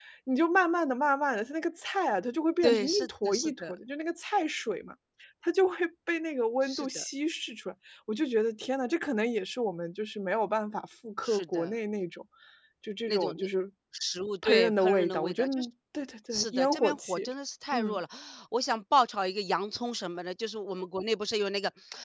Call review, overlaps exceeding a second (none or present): present